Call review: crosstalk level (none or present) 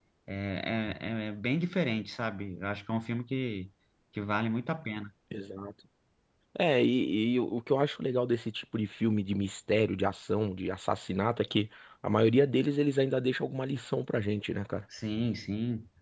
none